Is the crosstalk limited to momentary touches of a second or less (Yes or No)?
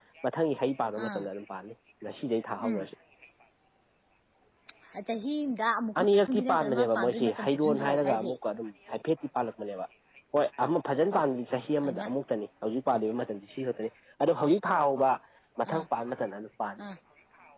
No